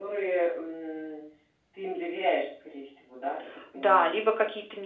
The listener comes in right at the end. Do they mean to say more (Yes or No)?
Yes